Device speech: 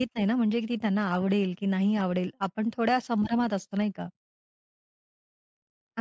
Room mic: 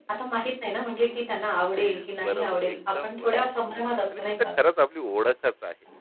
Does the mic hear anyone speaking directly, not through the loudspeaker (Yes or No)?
Yes